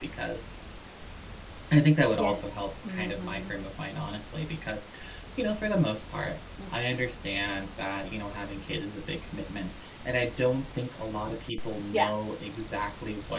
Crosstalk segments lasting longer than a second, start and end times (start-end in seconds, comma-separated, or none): 2.2-3.5